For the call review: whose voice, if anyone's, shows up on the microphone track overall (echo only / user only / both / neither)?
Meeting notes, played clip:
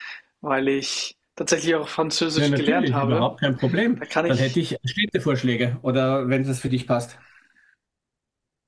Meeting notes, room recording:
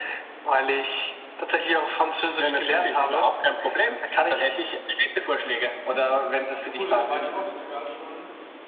both